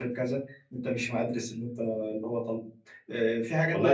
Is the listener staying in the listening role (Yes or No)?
No